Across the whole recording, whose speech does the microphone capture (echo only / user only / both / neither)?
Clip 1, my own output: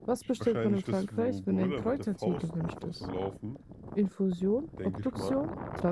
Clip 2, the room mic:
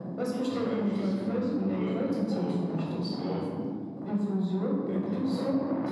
echo only